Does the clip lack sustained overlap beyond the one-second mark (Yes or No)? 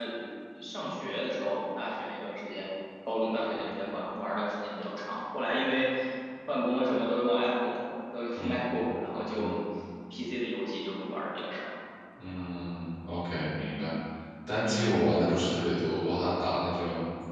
Yes